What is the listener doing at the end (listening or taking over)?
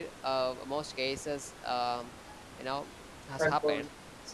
listening